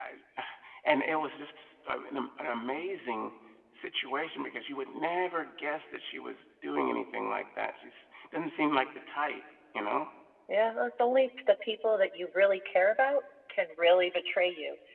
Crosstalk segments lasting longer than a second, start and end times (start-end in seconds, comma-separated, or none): none